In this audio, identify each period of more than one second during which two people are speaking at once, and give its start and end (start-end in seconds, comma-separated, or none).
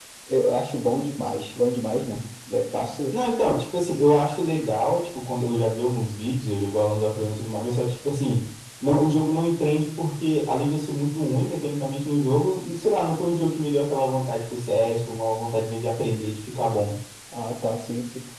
none